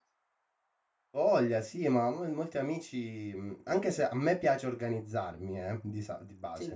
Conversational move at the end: listening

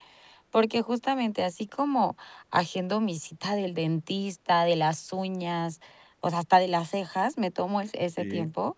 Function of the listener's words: listening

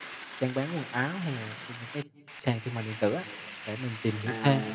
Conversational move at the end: taking over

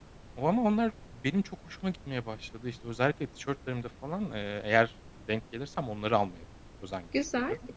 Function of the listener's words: taking over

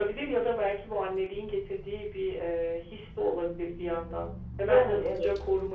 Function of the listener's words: listening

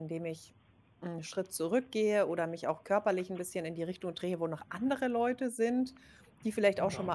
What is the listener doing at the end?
listening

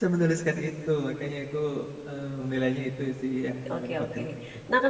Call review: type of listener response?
taking over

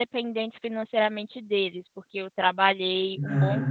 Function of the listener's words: listening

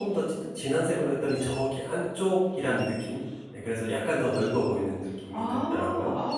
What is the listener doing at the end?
taking over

